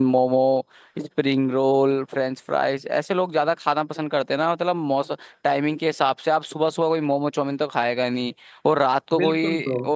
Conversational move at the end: listening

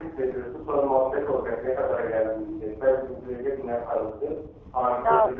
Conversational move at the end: listening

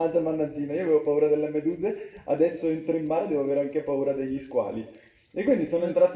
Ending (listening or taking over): listening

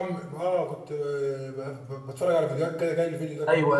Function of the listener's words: taking over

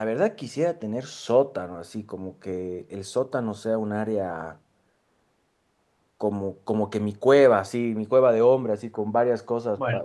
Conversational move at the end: listening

